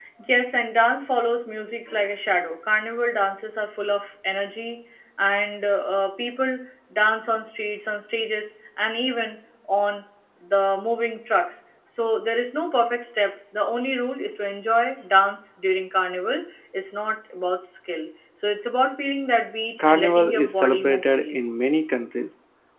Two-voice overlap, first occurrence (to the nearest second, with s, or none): 20 s